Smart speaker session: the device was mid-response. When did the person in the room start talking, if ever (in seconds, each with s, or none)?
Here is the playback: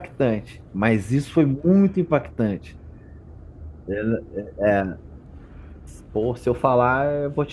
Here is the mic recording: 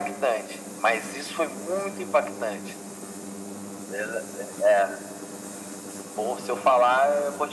none